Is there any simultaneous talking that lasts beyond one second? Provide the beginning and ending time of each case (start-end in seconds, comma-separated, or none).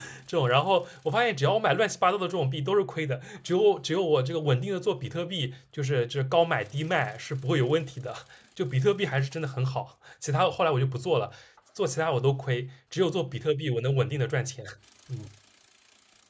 none